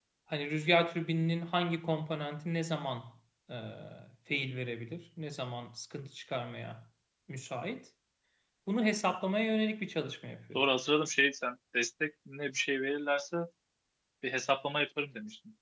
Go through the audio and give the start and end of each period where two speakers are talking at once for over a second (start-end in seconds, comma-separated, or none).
none